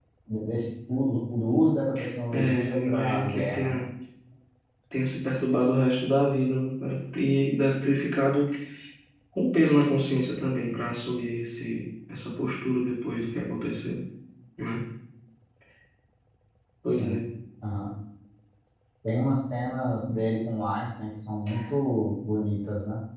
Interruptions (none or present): present